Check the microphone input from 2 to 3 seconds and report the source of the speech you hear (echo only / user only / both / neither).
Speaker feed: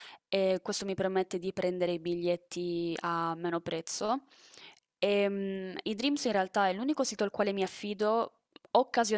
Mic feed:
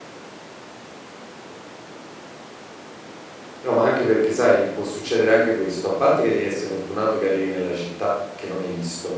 neither